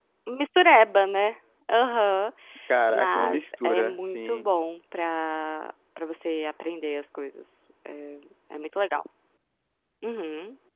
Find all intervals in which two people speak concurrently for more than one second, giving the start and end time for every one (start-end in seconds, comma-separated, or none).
2.9-4.5